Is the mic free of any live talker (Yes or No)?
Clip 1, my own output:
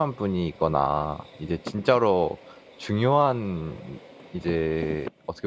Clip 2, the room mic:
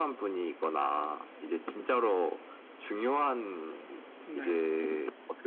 No